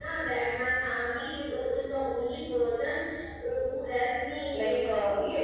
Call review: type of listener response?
taking over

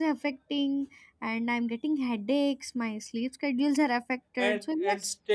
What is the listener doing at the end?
taking over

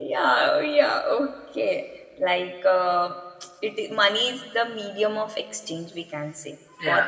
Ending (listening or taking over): listening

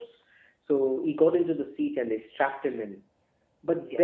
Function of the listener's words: listening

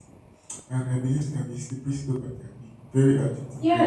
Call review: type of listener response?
taking over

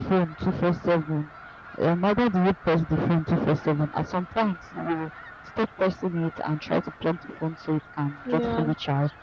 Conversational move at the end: listening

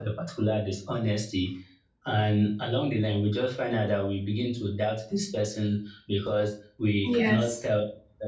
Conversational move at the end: listening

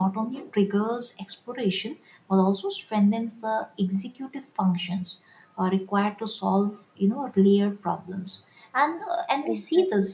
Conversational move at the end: listening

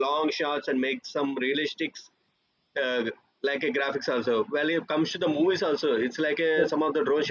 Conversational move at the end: listening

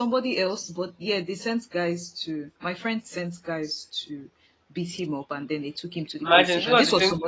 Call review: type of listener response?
taking over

